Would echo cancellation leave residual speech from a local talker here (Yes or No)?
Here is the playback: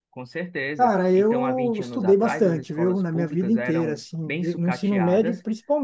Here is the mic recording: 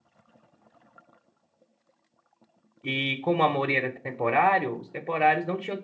Yes